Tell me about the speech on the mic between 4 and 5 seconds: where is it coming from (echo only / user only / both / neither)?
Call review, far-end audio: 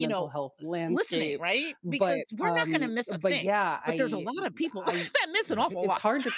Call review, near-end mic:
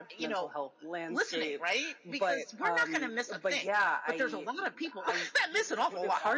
echo only